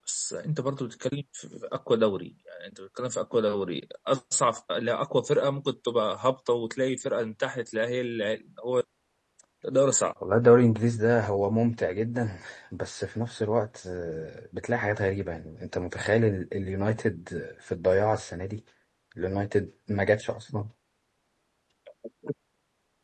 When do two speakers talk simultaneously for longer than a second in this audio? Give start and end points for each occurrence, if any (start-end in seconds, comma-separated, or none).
none